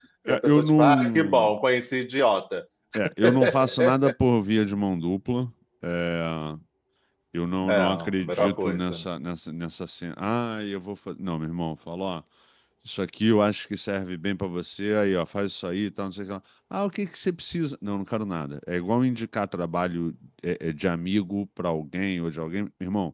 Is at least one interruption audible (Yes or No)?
Yes